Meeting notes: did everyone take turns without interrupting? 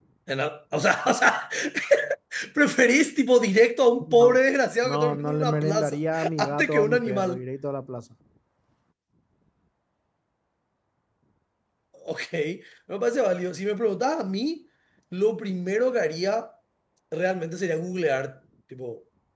No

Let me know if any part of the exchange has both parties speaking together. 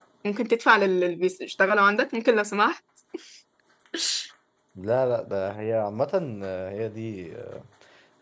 No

